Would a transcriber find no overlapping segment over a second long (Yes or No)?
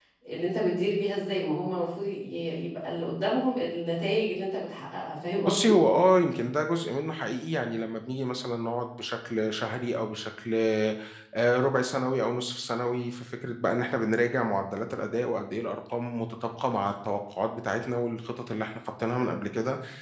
Yes